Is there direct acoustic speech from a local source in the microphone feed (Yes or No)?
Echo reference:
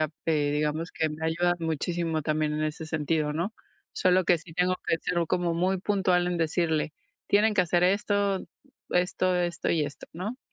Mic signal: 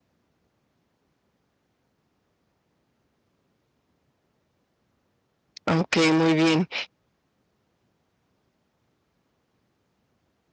Yes